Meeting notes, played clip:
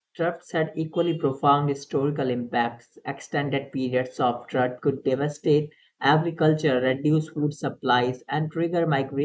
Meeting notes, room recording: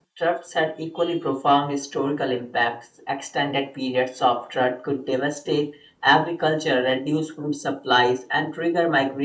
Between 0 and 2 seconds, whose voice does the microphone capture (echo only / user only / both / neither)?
echo only